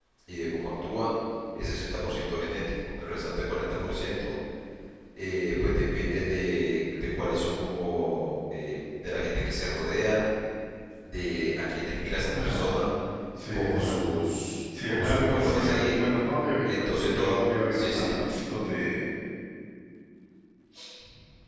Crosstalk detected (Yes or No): Yes